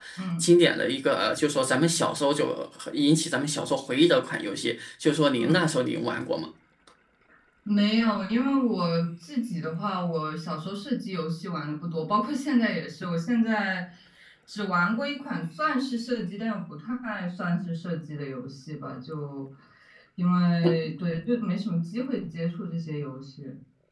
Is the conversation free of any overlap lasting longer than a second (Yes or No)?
Yes